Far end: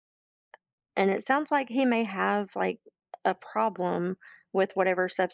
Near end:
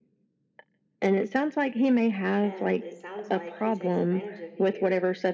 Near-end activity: present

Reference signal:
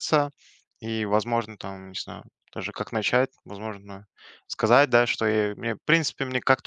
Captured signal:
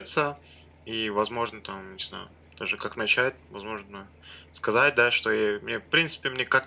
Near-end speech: none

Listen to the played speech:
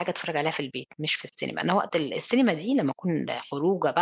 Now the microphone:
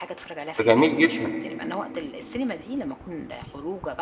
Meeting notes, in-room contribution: present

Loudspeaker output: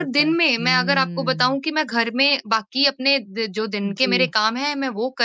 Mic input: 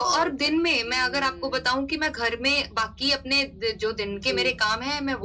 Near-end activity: none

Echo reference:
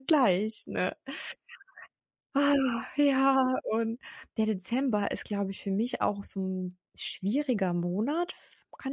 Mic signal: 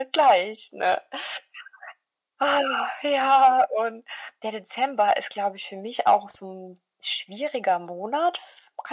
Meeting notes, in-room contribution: none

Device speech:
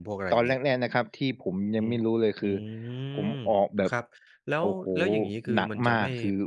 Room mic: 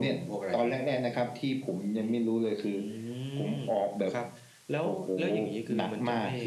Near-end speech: none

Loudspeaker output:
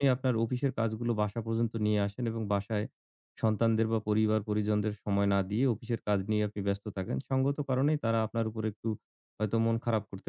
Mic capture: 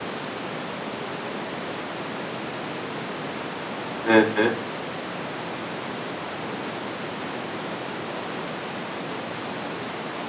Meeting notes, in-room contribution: present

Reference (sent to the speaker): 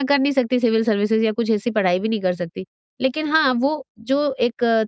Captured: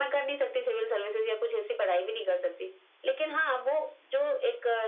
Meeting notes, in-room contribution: none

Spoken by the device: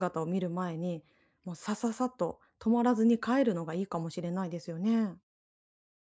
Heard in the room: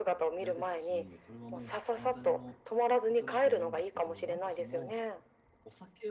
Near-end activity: present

